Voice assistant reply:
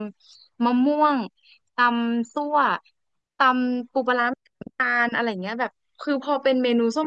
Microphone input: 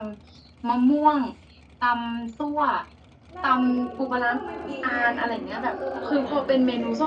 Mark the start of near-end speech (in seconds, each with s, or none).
3.3 s